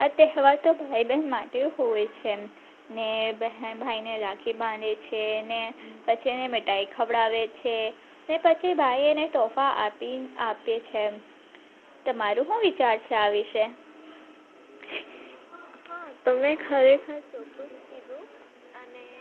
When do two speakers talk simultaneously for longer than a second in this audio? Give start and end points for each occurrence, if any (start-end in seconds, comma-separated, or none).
none